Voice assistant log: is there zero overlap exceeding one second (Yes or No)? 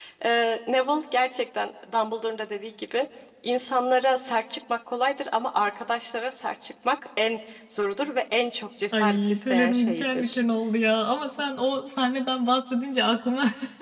No